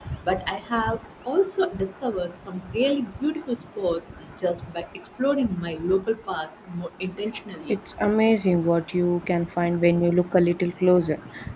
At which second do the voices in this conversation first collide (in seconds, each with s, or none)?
none